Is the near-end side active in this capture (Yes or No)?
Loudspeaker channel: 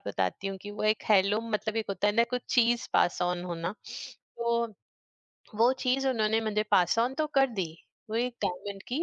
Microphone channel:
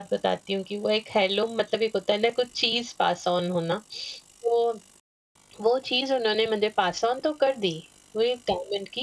No